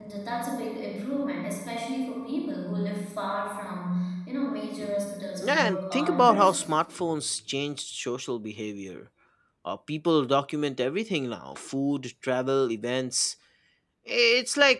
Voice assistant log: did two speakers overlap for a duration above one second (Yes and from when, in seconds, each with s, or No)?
Yes, from 5.4 s